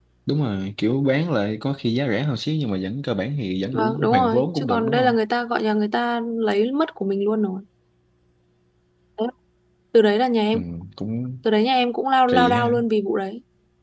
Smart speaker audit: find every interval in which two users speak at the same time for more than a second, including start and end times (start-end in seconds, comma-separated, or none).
3.7-5.1